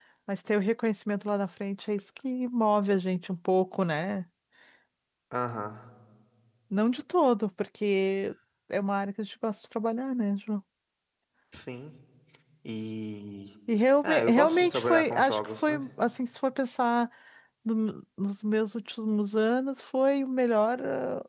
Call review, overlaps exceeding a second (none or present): present